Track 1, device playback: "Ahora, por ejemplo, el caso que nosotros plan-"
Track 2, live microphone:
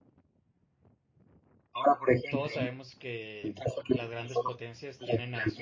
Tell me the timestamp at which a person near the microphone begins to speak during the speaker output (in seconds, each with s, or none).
2.3 s